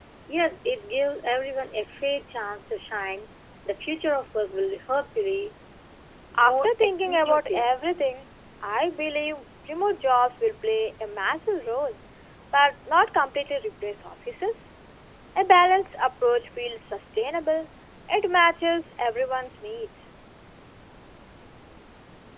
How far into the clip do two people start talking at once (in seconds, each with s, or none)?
6.4 s